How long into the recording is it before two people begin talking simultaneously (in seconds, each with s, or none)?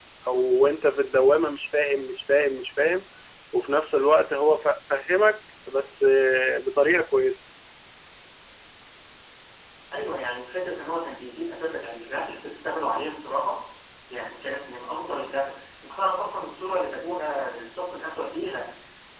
none